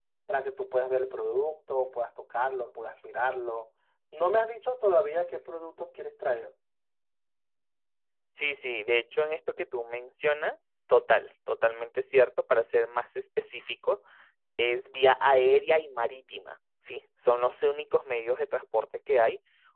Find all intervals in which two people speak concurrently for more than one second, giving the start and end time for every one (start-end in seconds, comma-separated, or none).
none